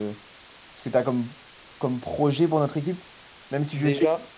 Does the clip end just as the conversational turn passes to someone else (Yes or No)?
No